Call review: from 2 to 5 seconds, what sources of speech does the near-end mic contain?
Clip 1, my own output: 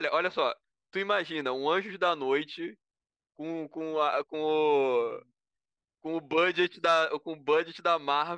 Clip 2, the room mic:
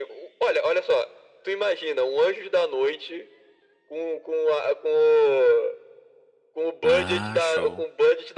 echo only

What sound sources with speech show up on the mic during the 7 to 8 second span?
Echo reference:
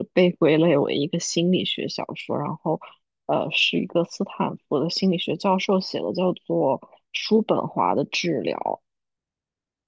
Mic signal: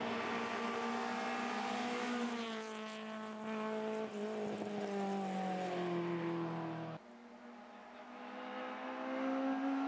neither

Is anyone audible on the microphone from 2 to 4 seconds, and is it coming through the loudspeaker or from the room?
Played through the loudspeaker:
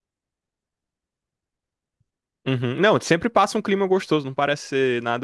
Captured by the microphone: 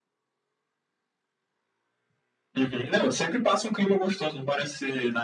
echo only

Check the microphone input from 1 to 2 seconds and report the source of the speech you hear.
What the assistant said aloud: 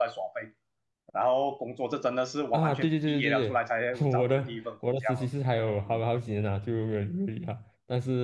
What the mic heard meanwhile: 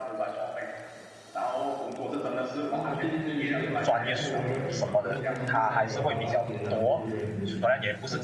echo only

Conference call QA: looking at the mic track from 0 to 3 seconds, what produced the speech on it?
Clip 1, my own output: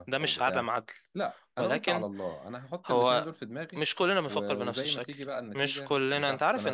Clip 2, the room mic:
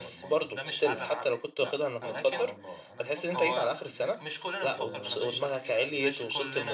both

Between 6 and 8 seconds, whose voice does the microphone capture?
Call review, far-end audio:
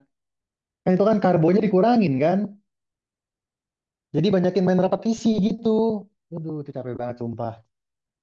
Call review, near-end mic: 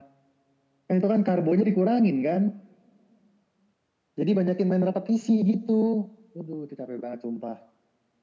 echo only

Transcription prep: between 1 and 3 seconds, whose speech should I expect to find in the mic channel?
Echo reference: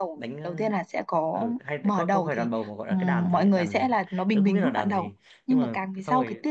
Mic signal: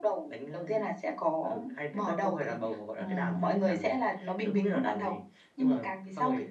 echo only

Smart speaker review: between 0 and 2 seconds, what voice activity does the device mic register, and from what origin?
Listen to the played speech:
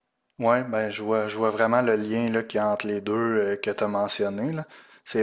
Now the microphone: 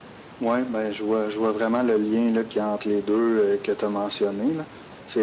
echo only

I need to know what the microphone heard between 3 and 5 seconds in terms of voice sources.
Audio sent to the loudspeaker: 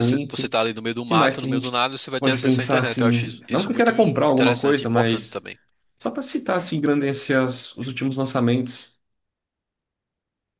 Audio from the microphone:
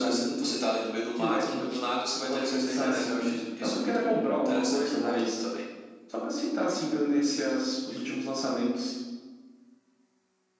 echo only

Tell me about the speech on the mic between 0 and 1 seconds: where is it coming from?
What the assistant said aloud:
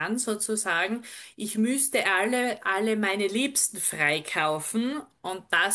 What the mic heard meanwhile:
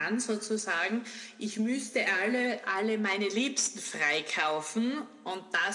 echo only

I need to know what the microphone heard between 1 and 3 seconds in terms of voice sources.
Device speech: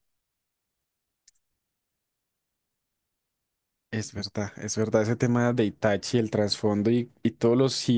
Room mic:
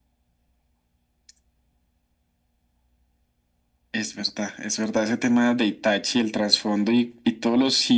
neither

